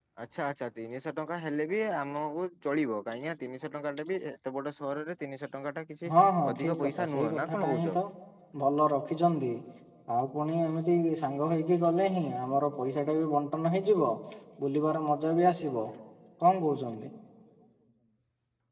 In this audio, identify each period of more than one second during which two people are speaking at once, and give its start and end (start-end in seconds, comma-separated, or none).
6.5-8.0